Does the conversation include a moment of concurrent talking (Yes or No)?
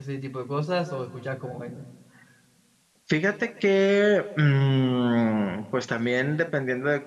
No